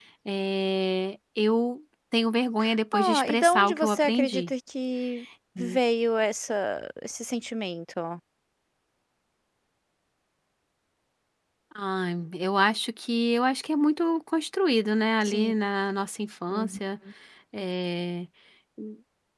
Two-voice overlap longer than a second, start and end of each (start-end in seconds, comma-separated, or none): 2.9-4.5